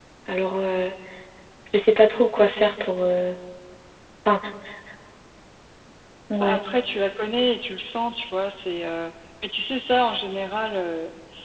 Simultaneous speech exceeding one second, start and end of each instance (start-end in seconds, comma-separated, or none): none